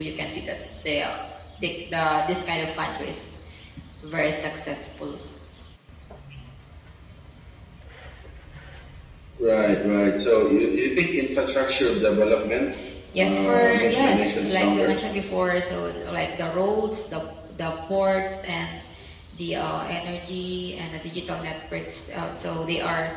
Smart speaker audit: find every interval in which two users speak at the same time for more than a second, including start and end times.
13.2-15.0

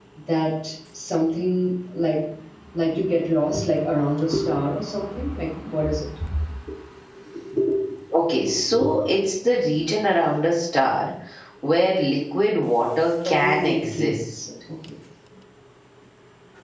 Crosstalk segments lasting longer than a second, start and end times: 13.2-14.4

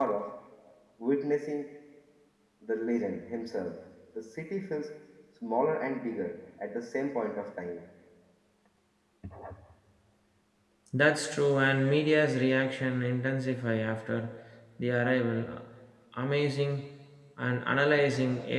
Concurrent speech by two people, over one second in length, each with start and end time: none

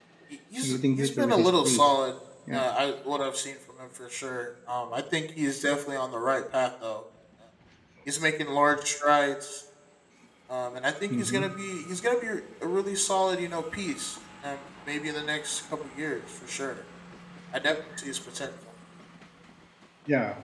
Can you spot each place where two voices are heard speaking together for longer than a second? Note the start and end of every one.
0.6-1.9

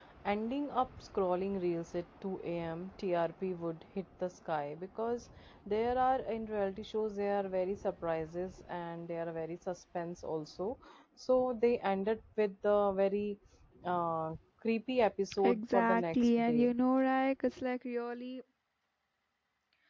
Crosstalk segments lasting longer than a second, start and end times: 15.4-16.7

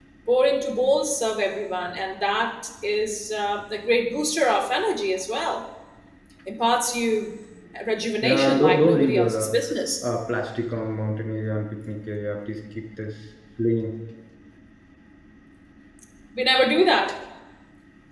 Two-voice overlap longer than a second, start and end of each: 8.2-9.5

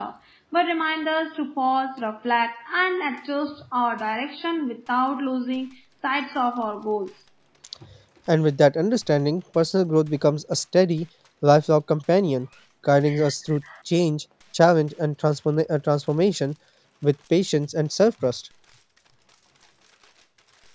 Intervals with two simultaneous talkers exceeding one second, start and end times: none

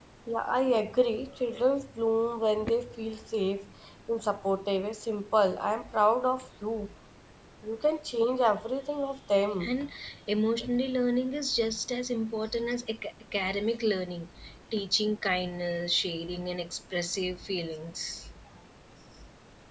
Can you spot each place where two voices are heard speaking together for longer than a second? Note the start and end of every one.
none

